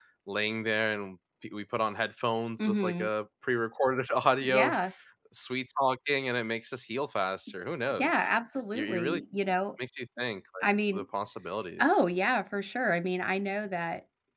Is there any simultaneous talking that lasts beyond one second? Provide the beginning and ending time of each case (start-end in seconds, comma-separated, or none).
none